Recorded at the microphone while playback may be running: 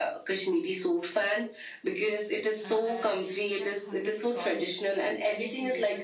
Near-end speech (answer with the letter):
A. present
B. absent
A